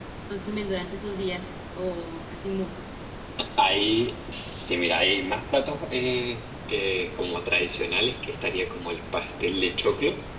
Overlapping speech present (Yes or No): No